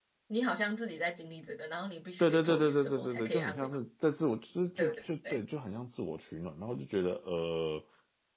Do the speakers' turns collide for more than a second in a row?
Yes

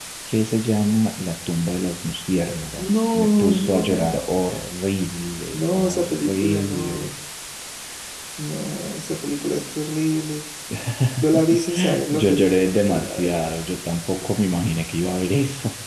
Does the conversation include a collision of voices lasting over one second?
Yes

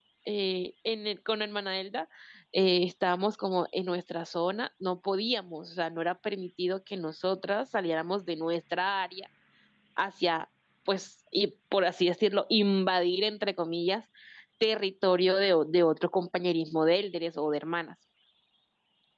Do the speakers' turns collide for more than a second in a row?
No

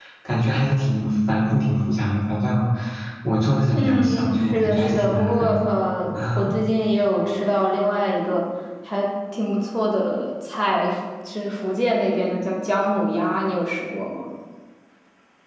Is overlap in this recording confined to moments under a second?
No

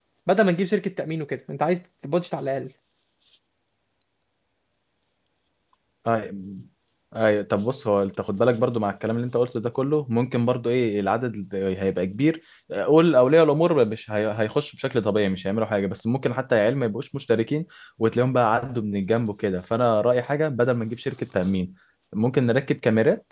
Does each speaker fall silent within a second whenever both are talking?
Yes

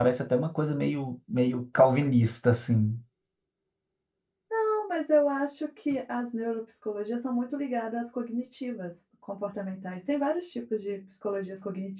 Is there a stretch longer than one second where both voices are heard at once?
No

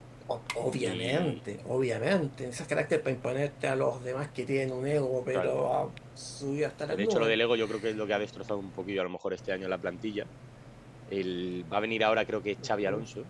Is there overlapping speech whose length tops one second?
No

